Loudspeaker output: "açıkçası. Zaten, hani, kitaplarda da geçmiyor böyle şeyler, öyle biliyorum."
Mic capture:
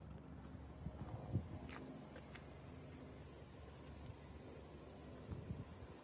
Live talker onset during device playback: none

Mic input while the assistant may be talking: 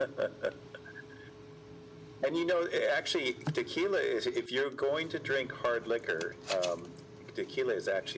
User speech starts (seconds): none

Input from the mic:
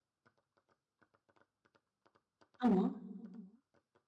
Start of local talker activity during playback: 2.6 s

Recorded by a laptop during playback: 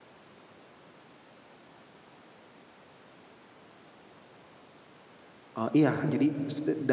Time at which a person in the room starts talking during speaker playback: 5.6 s

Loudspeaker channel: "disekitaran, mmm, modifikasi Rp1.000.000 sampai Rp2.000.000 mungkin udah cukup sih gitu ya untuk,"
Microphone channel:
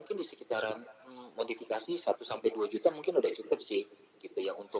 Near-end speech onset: none

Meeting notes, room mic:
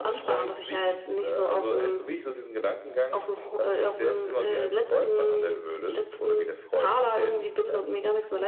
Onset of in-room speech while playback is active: none

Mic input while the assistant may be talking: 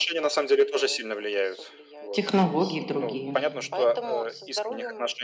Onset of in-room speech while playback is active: 2.1 s

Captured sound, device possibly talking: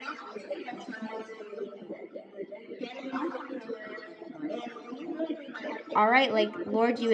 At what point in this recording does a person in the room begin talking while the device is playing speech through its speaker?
5.9 s

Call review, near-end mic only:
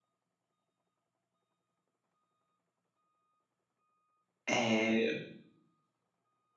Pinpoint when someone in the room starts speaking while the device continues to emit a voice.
4.5 s

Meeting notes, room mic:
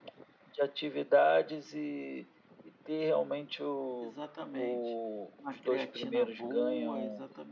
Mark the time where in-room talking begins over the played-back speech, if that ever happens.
4.0 s

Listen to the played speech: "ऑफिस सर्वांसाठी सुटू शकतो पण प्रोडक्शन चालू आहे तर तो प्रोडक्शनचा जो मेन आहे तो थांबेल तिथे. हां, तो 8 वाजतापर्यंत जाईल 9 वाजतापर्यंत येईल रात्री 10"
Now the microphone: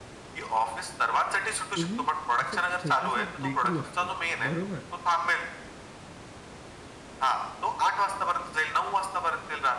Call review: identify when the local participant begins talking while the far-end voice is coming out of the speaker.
1.8 s

